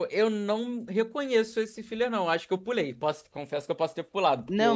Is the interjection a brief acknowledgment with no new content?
No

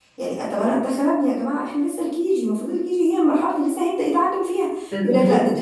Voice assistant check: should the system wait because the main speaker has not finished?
Yes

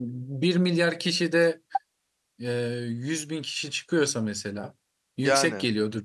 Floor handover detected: No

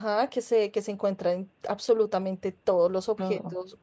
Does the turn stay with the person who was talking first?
Yes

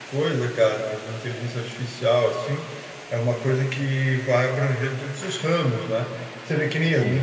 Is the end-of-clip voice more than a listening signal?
No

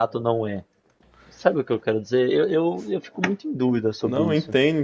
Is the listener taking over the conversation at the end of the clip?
Yes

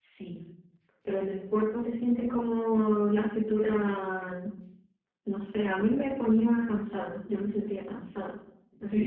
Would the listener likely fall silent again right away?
No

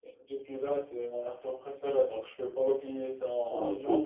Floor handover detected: Yes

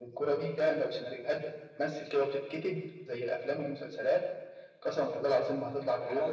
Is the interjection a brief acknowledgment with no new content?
No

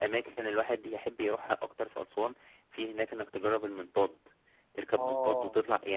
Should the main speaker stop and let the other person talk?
No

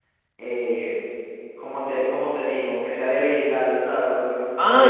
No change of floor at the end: No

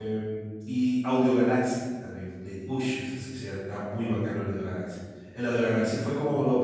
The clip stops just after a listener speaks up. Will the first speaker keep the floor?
Yes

